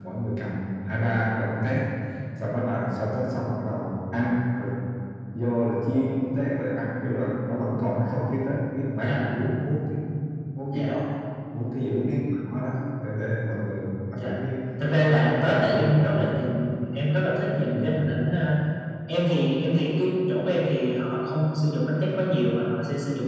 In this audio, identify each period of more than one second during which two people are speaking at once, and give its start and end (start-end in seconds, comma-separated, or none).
15.0-16.3